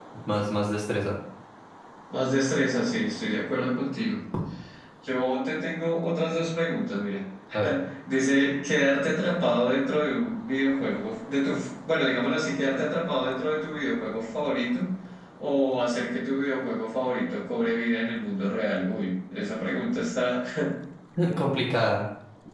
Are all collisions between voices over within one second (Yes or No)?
Yes